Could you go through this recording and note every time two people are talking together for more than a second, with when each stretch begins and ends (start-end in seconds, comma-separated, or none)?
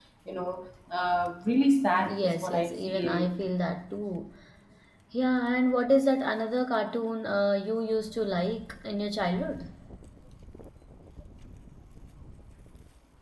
2.0-3.3